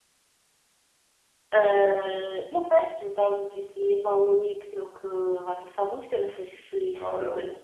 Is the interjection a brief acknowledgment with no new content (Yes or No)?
No